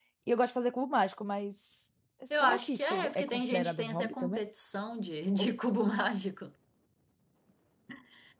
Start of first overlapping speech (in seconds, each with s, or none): 2.3 s